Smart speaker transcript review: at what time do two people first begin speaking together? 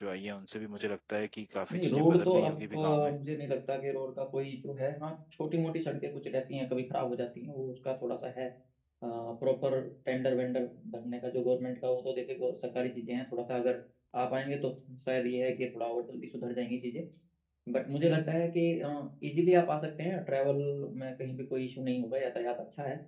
2 s

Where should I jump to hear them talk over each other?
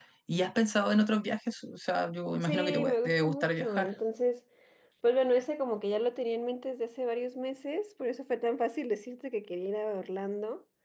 2 s

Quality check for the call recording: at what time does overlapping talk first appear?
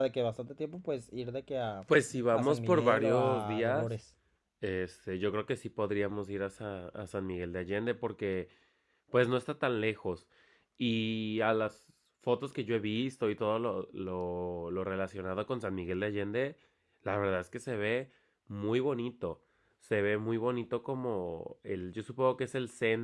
2 s

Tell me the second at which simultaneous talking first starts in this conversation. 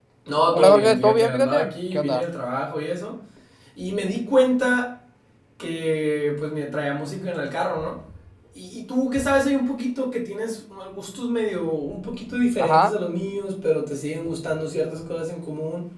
1 s

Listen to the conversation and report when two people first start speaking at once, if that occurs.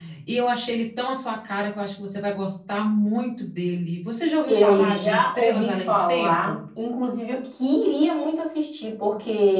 4 s

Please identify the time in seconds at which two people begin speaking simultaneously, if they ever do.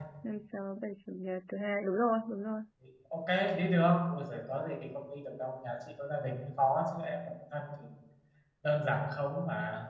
none

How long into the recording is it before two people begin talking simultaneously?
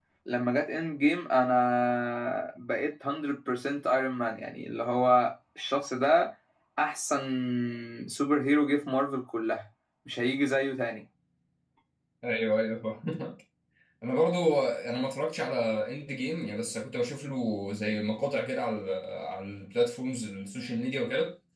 none

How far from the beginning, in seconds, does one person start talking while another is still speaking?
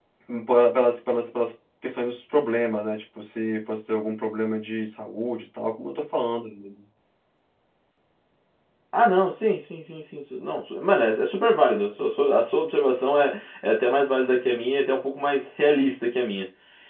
none

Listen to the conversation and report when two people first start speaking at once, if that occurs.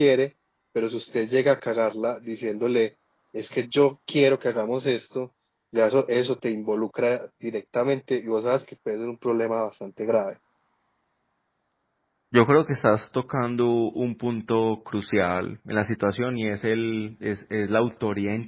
none

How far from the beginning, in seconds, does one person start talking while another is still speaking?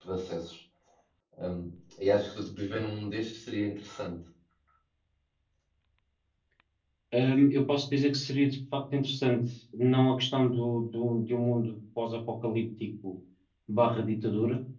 none

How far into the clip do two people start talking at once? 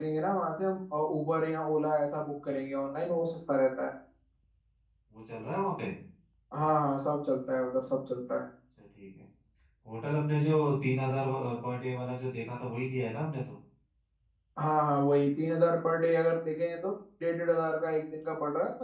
none

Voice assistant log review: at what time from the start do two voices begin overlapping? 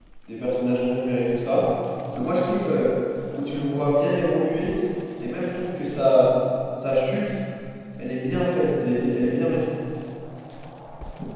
none

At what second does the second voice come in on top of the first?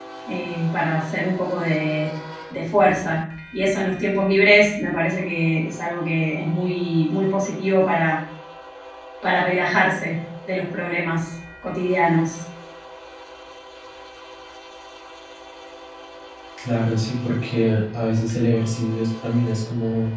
none

